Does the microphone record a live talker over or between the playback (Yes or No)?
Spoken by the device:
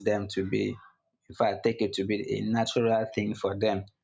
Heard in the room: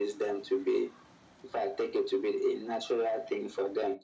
No